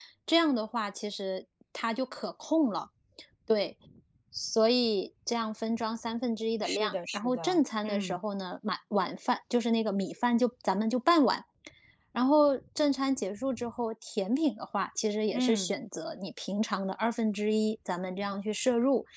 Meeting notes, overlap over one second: present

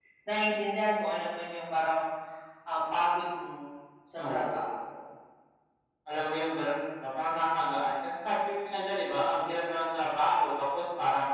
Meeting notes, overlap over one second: none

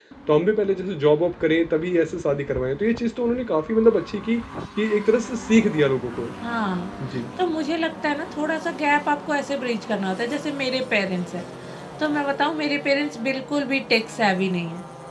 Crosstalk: none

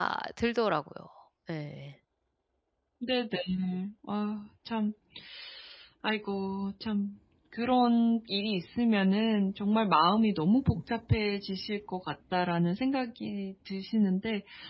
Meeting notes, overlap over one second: none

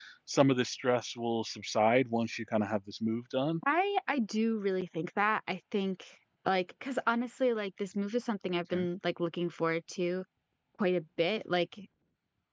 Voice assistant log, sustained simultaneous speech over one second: none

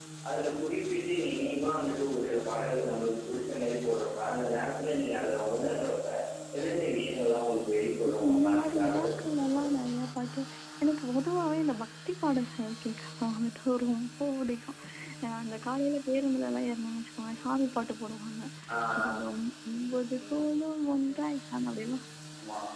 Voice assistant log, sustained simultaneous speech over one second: present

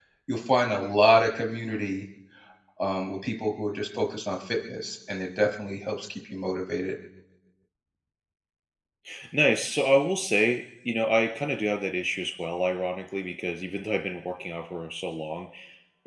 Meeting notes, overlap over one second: none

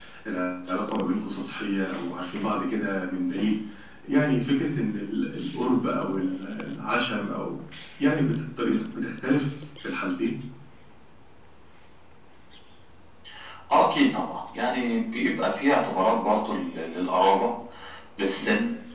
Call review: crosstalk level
none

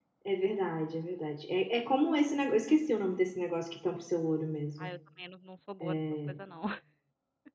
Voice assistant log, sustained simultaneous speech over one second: none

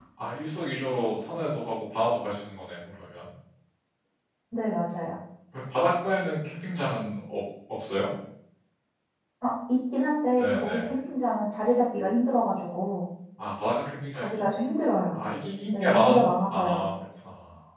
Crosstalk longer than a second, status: present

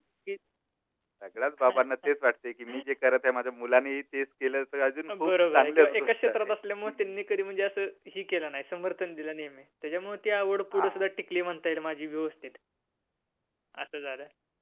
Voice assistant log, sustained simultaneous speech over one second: present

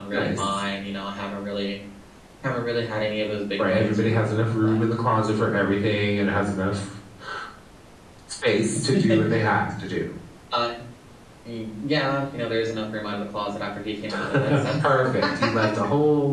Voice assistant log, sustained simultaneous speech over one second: present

